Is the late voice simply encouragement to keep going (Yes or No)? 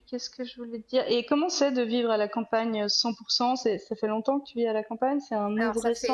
No